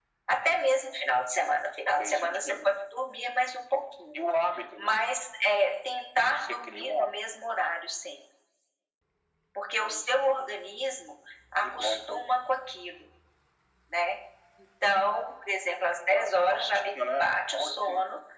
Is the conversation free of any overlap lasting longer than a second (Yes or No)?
No